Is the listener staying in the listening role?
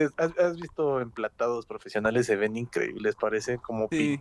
No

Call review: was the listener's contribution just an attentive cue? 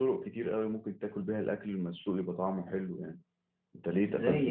No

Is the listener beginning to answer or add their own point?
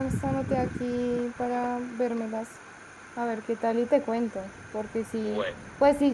No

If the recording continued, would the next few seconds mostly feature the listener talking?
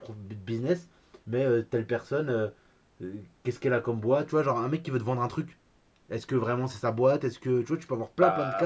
Yes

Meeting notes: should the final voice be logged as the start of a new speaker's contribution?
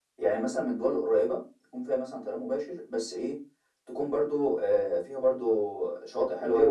No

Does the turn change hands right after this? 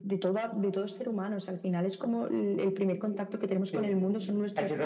Yes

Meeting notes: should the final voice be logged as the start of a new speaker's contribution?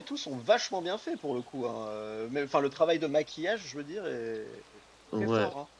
Yes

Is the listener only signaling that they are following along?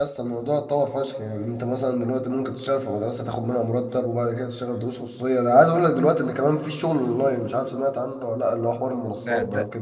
No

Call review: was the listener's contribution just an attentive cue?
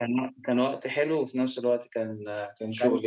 No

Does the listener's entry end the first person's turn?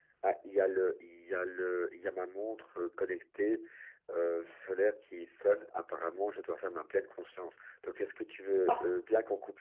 No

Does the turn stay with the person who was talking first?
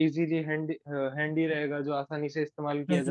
No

